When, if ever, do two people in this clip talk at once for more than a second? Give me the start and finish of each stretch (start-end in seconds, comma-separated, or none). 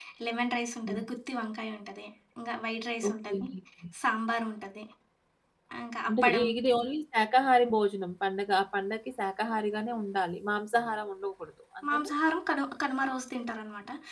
none